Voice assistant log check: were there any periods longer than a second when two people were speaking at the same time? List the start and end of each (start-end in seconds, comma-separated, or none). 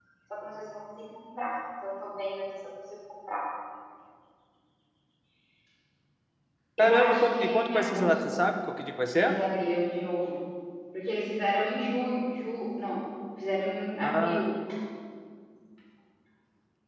6.8-8.1